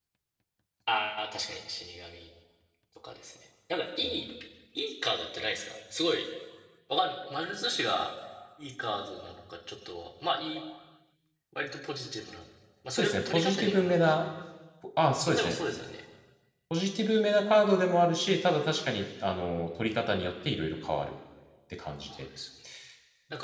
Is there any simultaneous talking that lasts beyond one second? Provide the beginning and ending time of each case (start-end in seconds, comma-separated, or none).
12.9-14.2